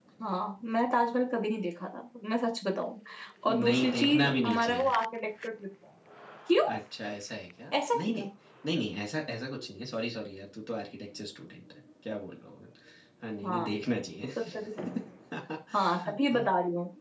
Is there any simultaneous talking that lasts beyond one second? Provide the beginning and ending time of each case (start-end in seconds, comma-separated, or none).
3.5-4.9